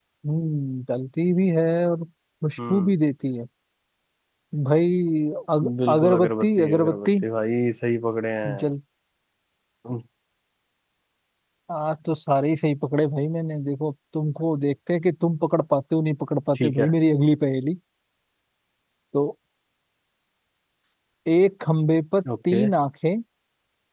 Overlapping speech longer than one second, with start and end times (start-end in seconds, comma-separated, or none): 5.9-7.1